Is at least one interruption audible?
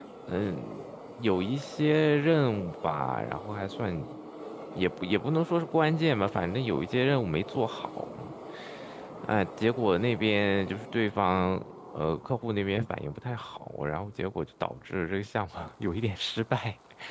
No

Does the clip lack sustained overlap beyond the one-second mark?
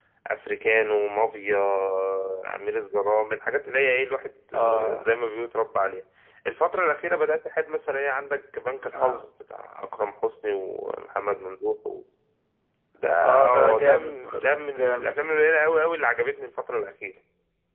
No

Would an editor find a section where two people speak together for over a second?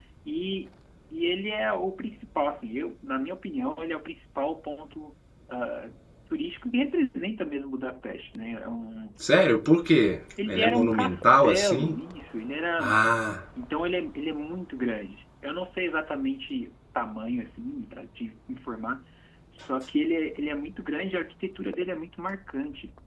Yes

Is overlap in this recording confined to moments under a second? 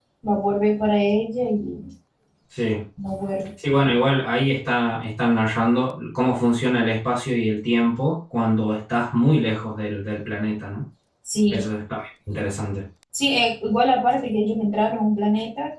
Yes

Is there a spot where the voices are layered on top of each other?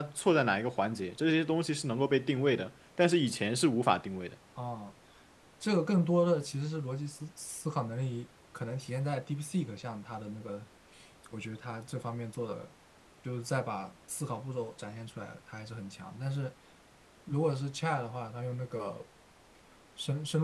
No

